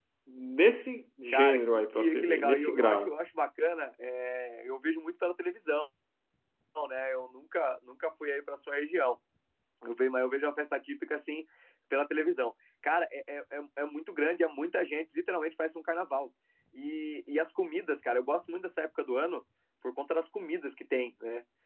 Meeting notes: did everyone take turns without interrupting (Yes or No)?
No